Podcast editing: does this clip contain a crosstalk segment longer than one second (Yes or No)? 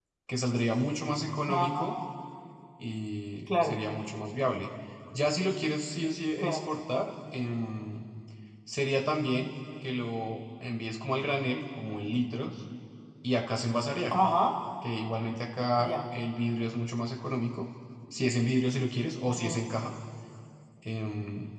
No